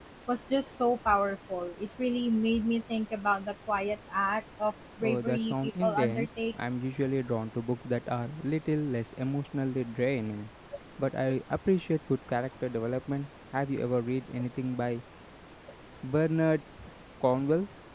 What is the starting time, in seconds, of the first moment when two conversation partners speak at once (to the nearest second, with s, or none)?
5 s